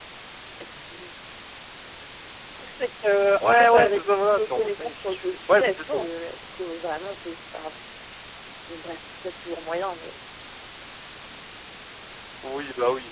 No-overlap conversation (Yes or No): No